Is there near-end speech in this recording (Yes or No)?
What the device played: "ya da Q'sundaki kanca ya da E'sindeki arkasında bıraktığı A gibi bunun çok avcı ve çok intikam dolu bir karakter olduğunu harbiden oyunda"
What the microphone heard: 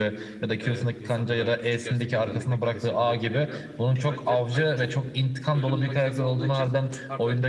Yes